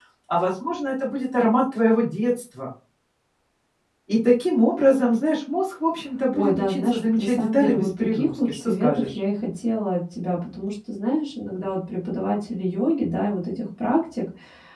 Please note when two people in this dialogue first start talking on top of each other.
6 s

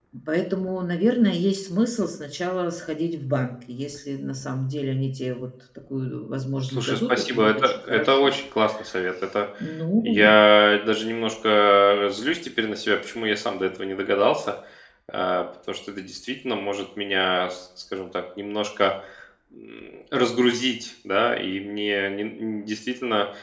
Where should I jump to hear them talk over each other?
7 s

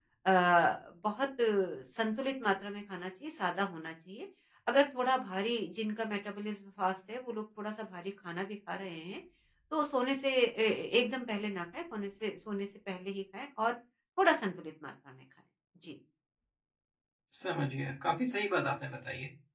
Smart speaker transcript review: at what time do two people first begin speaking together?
none

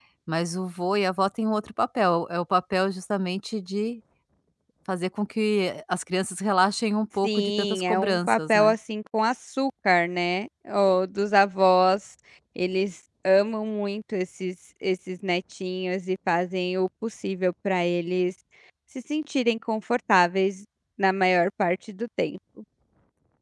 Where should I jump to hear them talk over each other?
7 s

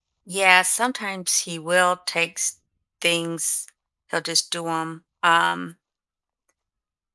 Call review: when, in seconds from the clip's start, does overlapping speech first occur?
none

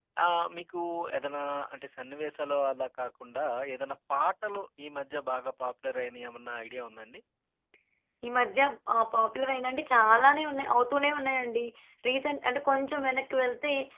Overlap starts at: none

